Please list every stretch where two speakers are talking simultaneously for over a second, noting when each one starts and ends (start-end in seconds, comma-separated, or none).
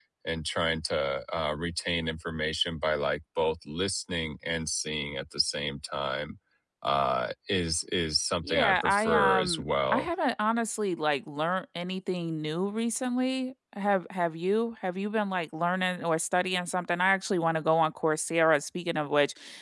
8.4-10.1